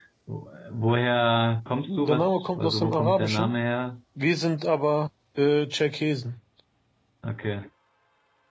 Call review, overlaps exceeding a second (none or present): present